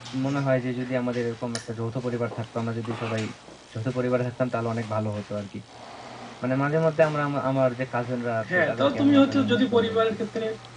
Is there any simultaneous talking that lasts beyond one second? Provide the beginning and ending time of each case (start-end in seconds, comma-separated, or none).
8.6-10.1